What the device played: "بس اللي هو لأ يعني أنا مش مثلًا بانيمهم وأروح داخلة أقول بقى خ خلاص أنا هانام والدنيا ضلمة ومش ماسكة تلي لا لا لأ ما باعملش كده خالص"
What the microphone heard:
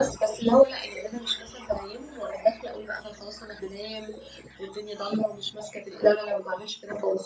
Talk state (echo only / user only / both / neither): echo only